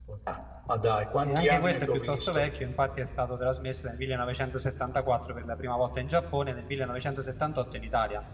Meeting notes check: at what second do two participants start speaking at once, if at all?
1.2 s

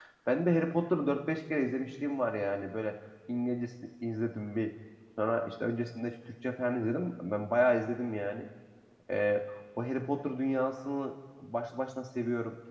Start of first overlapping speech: none

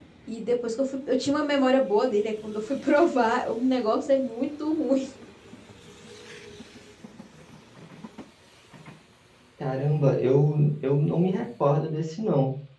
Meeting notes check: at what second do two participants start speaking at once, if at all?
none

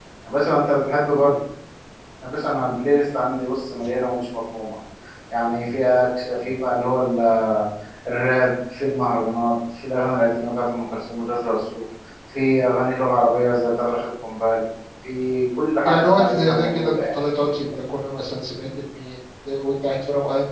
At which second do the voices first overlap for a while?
15.8 s

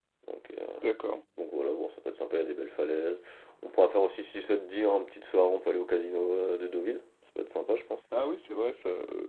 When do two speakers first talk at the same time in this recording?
none

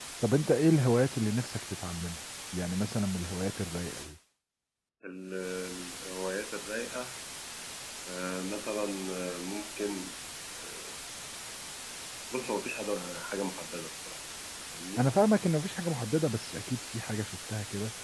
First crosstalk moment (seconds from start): none

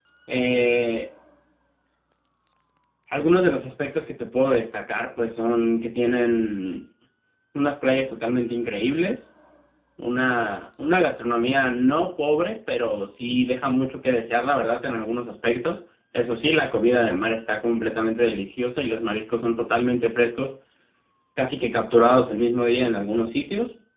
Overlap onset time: none

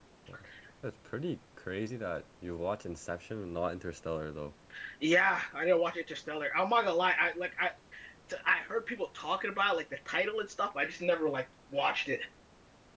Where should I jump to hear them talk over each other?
none

